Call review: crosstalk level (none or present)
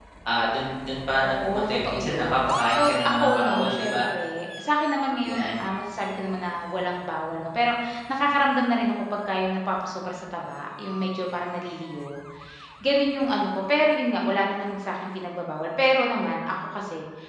present